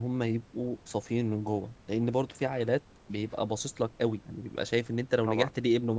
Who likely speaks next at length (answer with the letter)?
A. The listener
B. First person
B